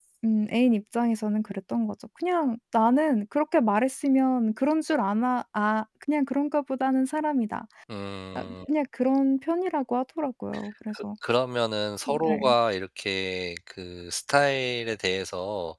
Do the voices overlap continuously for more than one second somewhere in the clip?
No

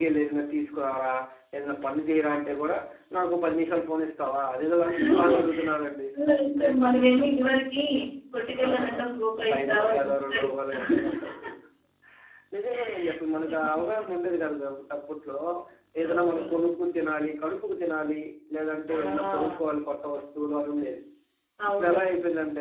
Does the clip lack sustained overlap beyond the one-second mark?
No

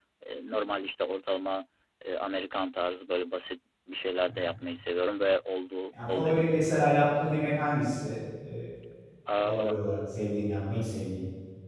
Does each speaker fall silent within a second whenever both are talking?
Yes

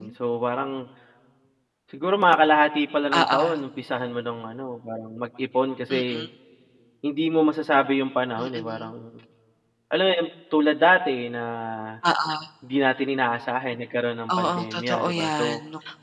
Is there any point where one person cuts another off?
Yes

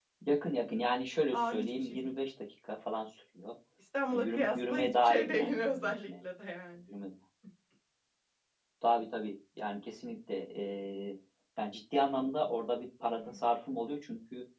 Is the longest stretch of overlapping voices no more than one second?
No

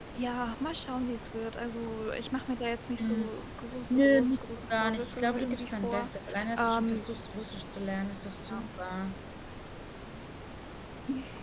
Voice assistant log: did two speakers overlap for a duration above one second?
Yes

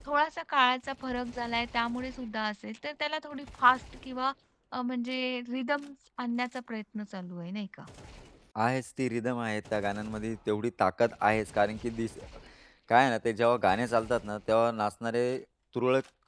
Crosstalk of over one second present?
No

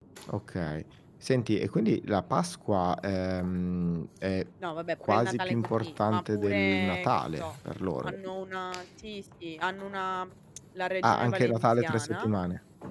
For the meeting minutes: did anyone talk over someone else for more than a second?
Yes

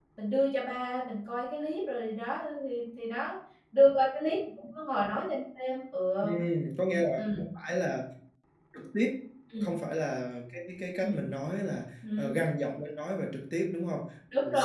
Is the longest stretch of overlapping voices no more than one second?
Yes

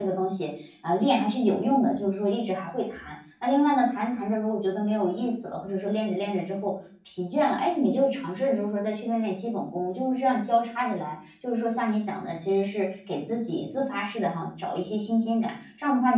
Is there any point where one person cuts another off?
No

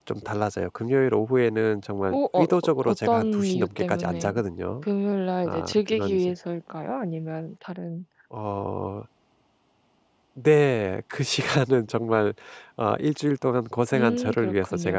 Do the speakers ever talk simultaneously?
Yes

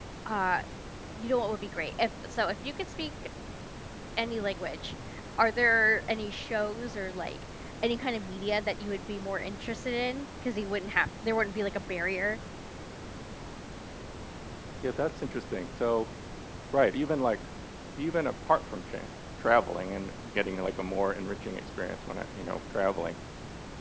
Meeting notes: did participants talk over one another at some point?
No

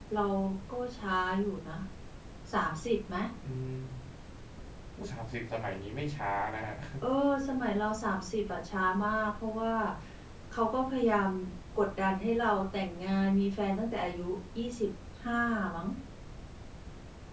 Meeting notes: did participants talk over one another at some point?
No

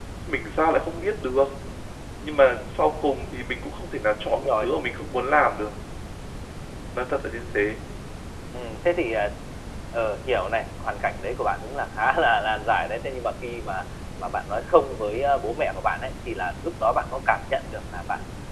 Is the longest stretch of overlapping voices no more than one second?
Yes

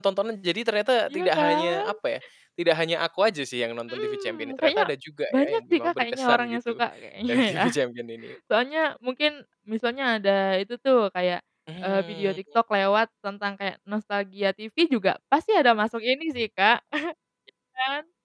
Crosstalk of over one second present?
Yes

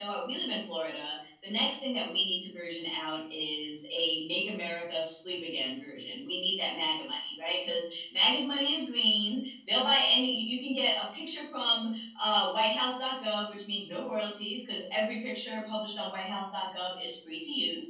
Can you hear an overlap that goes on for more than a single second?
No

